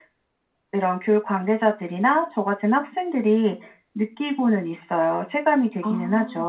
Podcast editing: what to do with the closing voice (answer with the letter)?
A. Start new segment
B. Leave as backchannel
A